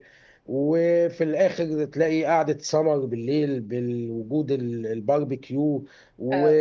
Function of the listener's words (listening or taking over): listening